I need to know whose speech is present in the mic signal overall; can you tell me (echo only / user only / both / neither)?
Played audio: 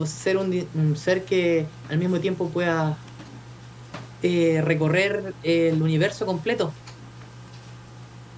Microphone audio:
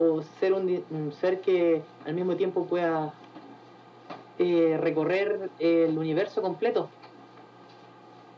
echo only